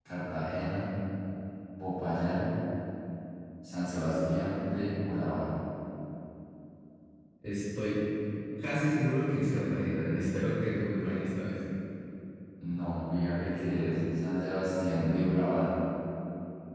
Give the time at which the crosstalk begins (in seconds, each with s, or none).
none